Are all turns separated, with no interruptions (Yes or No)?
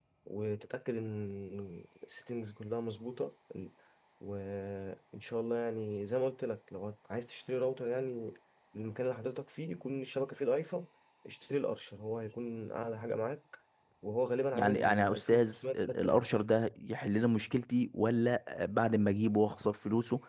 No